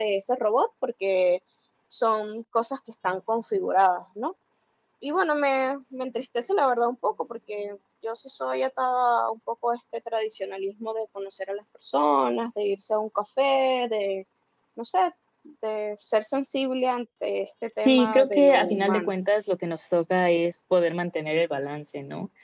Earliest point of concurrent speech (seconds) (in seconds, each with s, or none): 17.9 s